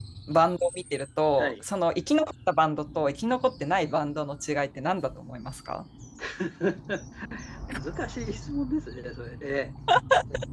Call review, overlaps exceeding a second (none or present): none